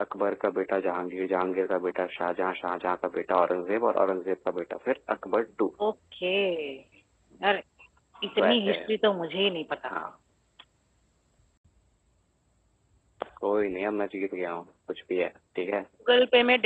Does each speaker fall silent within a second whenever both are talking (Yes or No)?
Yes